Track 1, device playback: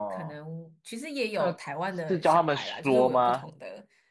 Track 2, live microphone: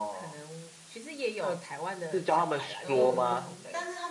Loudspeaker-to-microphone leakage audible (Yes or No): Yes